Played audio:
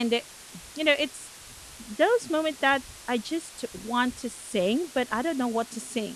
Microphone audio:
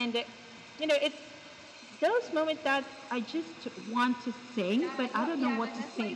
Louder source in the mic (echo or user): echo